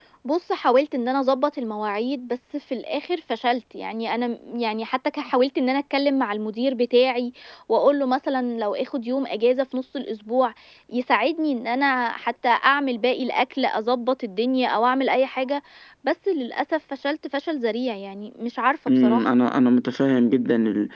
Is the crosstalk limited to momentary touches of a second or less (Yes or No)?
Yes